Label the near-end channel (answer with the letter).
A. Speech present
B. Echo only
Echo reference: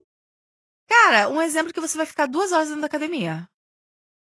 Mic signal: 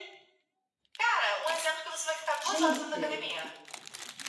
A